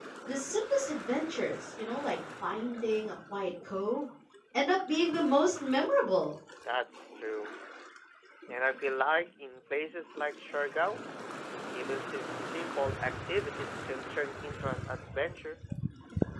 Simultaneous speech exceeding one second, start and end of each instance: none

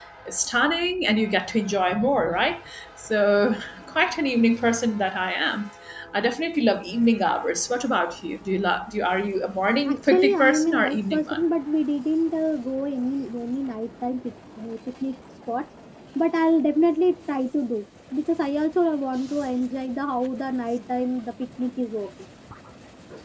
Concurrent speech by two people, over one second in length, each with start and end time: 9.9-11.4

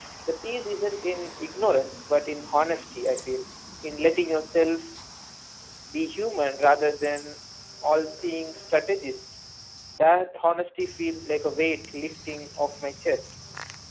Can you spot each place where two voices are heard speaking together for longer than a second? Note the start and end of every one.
none

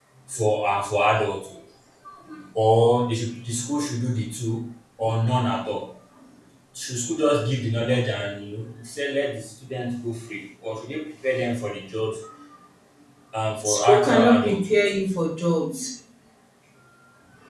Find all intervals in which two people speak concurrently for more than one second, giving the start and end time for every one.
13.6-15.0

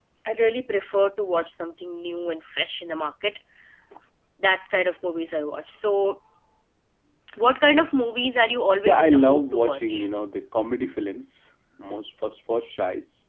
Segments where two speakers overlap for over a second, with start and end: 8.8-10.1

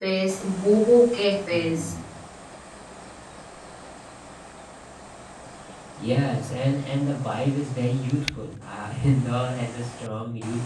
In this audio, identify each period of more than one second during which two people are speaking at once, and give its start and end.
none

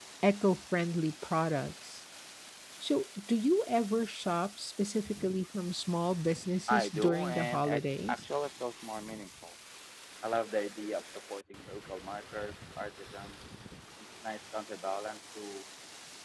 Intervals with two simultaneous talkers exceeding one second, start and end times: 6.7-8.2

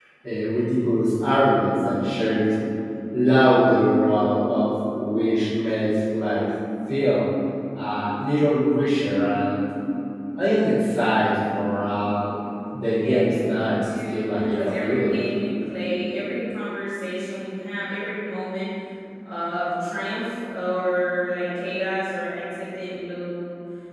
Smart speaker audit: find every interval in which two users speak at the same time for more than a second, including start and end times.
12.9-15.2

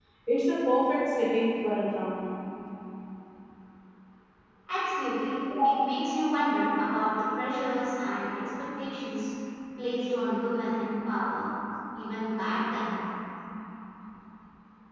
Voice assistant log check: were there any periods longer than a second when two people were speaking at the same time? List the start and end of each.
none

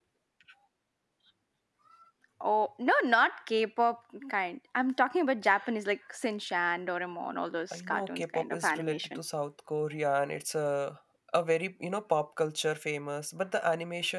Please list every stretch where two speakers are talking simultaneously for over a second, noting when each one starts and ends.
7.7-9.2

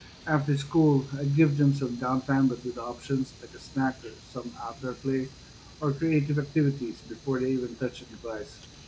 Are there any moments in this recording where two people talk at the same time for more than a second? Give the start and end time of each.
none

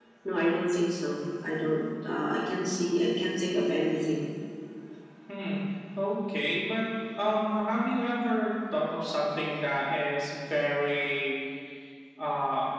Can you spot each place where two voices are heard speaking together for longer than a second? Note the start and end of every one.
none

